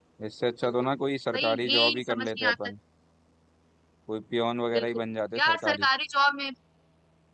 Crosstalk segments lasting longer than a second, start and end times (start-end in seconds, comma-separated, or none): 1.3-2.5